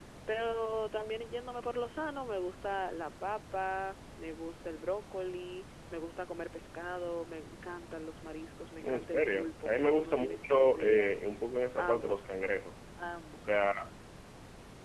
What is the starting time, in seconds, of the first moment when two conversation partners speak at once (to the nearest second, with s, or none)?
9 s